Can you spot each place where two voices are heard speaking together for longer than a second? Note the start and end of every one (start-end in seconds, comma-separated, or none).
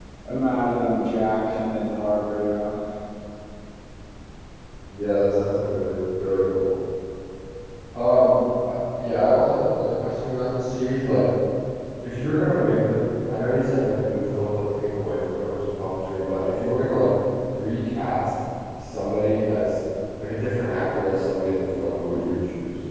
none